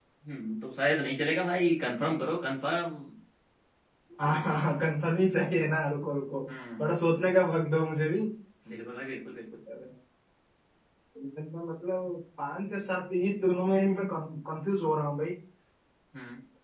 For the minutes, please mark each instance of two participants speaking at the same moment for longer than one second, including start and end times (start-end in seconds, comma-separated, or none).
none